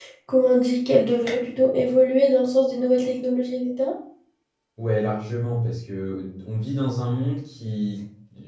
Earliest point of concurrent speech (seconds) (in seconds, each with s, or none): none